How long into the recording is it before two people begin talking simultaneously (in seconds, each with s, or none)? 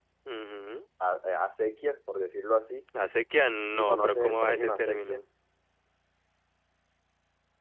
3.7 s